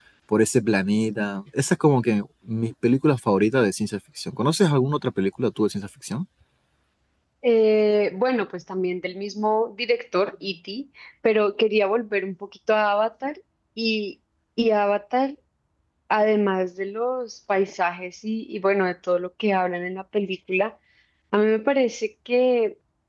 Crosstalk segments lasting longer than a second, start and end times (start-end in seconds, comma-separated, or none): none